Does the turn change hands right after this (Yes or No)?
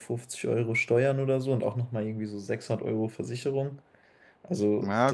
No